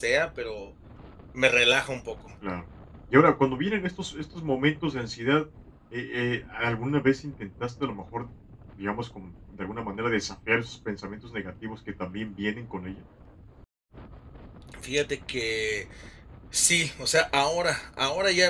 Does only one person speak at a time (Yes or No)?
Yes